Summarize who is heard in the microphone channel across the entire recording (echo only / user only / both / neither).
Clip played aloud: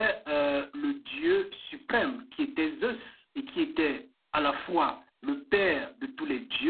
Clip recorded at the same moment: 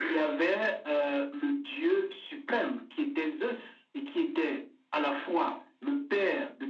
echo only